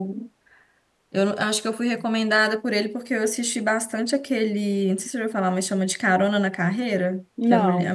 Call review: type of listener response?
listening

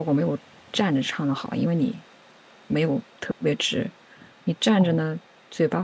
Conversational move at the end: listening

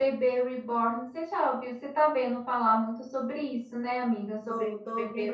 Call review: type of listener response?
taking over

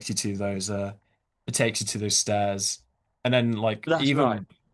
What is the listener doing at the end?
listening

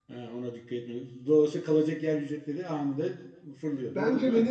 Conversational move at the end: taking over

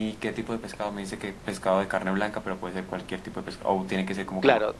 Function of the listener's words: taking over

